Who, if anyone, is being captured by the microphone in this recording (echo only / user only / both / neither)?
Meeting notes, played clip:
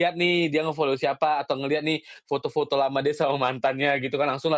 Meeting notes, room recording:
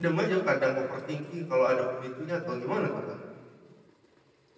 user only